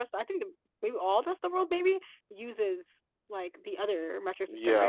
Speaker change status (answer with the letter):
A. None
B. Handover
B